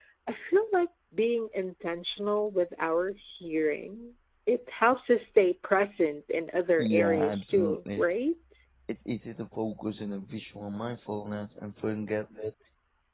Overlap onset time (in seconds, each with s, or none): 6.8 s